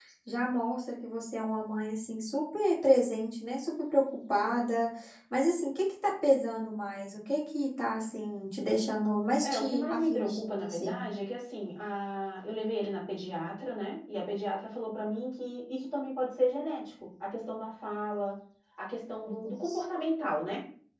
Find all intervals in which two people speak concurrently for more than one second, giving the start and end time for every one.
9.4-11.0

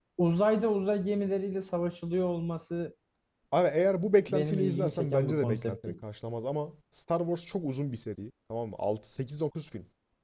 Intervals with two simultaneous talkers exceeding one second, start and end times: 4.3-5.9

